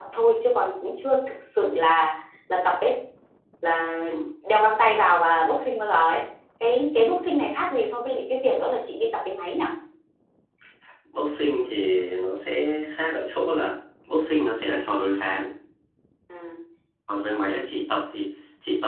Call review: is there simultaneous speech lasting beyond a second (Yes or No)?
No